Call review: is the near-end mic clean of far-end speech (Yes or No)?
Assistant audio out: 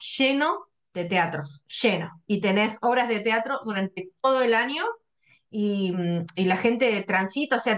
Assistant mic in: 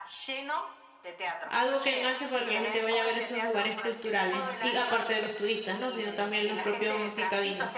No